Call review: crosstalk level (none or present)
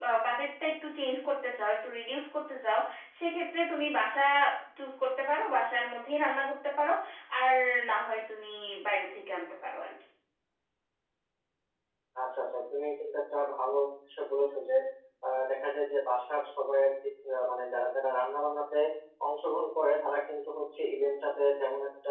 none